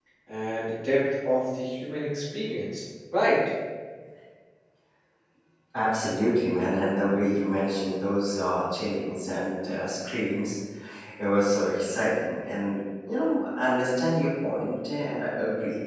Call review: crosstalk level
none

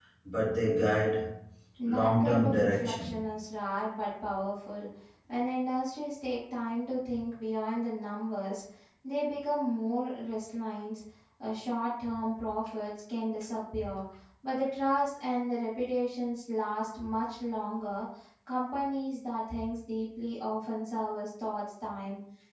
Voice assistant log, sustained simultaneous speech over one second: present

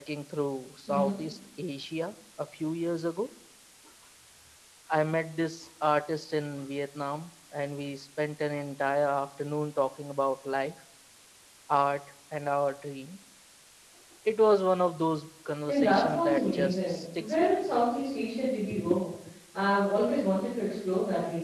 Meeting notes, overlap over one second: present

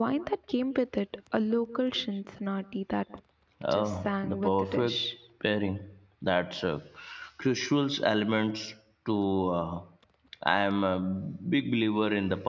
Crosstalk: present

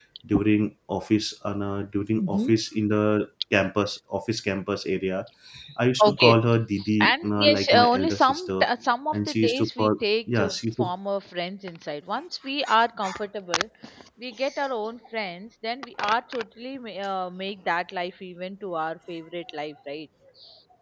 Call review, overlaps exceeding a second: present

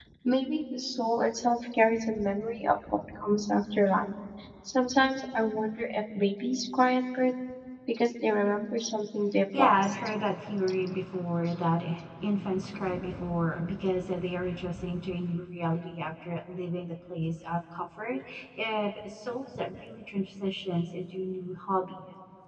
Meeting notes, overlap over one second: none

